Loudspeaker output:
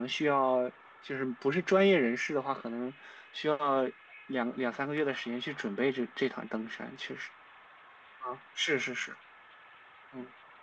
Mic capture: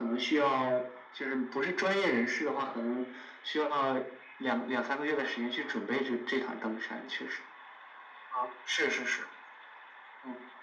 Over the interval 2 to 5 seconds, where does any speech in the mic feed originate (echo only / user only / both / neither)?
echo only